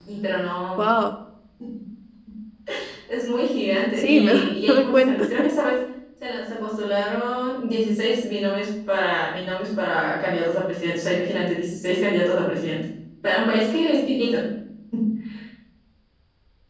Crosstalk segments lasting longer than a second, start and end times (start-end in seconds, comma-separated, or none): 4.0-5.3